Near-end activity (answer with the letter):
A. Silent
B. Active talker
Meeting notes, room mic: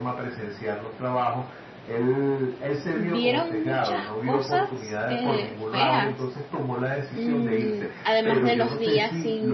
B